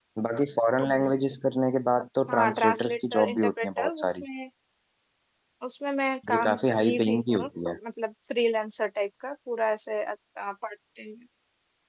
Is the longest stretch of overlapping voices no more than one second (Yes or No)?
No